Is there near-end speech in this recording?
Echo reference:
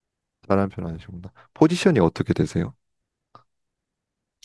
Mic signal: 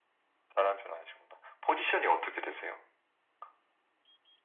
No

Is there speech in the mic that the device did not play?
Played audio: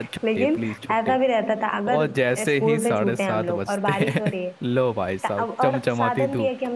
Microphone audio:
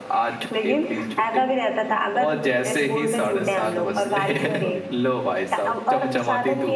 Yes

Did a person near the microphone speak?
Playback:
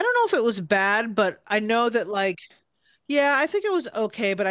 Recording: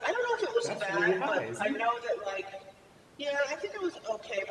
Yes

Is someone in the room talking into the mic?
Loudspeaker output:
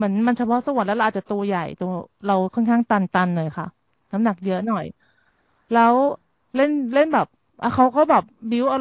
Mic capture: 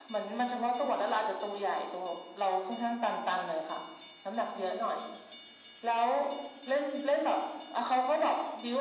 No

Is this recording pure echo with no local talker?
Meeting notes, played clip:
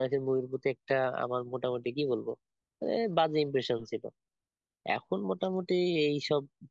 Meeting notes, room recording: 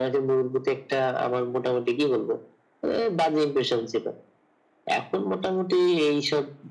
Yes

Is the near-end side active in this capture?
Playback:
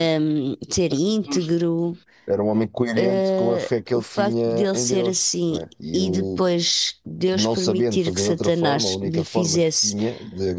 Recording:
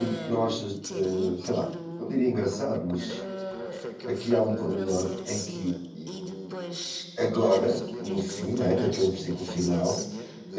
Yes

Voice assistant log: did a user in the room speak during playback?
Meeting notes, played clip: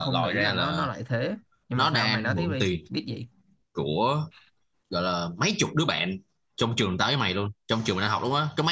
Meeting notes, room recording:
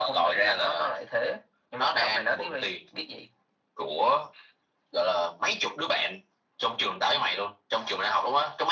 No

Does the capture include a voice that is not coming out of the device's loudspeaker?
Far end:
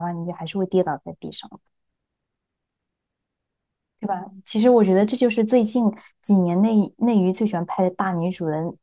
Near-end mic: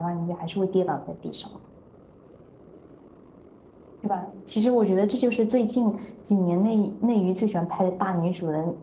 No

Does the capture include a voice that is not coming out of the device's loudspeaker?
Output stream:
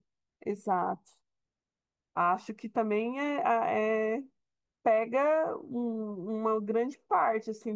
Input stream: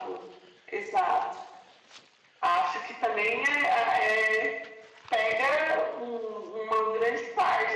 No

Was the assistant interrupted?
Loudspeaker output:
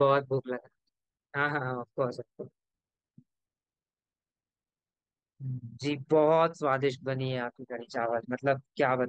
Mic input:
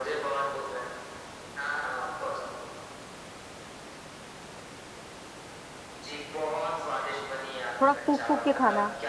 Yes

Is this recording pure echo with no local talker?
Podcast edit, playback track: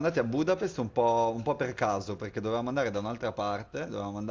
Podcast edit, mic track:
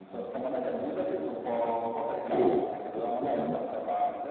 No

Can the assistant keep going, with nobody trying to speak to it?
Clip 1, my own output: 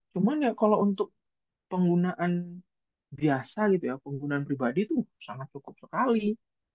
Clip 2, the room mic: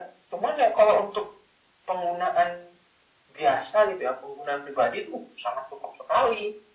Yes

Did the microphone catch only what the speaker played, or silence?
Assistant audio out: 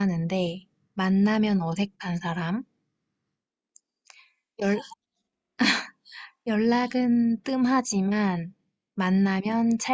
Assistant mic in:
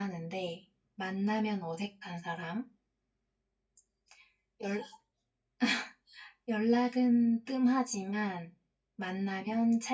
Yes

